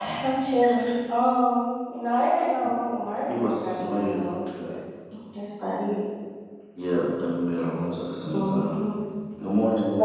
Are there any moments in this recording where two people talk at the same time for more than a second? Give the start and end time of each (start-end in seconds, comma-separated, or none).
3.3-4.8